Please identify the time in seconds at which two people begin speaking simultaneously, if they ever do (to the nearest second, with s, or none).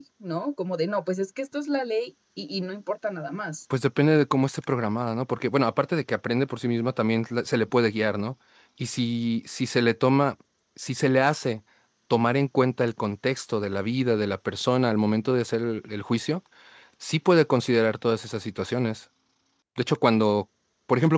none